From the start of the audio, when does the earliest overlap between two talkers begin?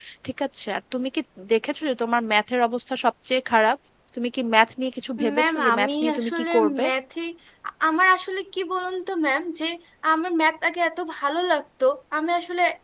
5 s

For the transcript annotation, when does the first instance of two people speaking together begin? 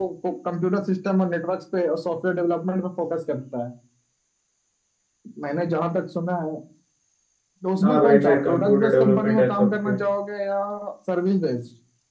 8 s

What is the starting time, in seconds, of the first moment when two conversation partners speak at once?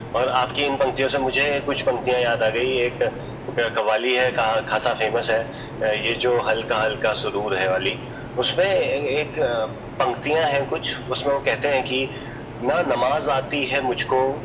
none

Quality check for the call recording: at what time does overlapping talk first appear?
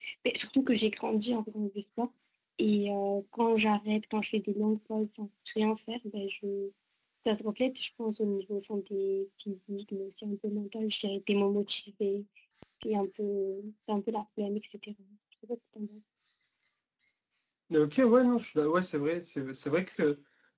none

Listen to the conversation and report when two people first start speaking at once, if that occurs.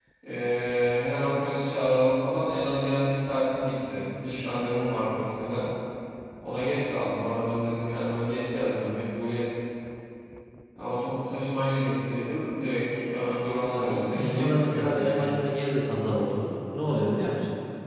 14 s

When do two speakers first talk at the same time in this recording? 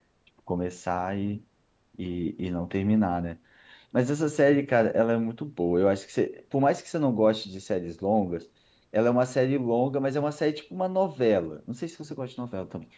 none

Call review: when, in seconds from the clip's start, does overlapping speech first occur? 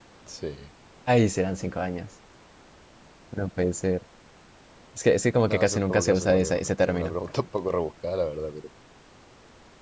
5 s

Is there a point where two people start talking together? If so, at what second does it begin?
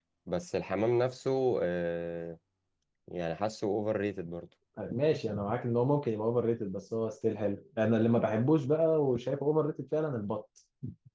none

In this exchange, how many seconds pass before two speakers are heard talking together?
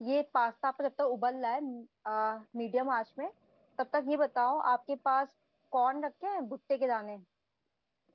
none

